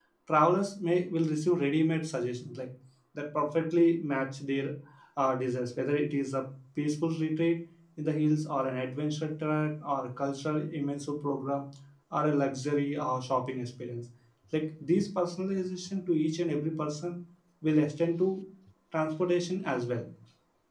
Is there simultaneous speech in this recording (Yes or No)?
No